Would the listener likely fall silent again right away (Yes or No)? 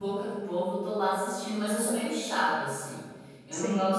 Yes